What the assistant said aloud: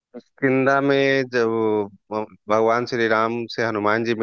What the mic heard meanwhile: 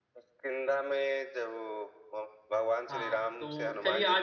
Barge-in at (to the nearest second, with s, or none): 3 s